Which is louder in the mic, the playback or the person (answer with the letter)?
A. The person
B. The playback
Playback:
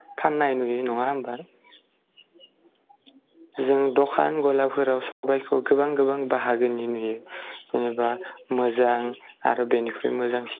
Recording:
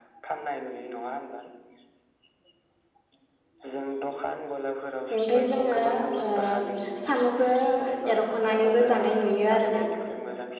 A